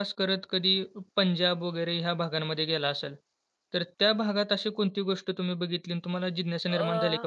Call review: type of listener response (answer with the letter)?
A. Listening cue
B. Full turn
A